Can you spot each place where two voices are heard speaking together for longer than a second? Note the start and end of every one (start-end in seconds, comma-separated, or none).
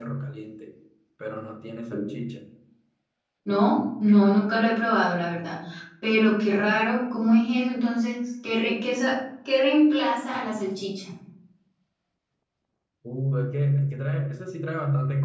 none